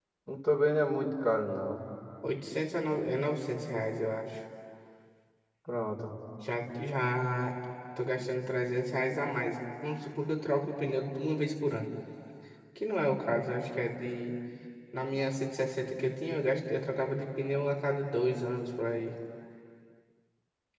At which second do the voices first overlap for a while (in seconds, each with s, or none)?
none